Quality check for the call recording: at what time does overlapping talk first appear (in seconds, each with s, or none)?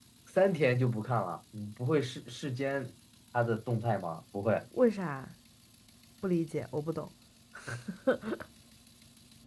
none